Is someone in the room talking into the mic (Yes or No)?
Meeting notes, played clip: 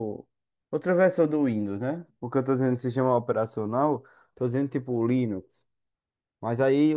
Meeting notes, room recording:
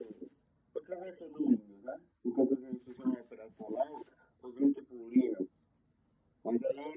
No